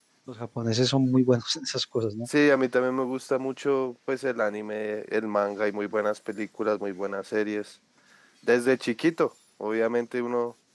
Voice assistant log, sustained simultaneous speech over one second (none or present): none